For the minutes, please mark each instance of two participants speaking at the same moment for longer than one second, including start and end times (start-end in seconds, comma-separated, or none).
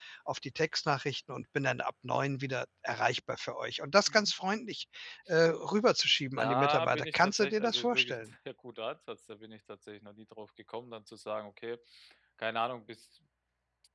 6.4-8.3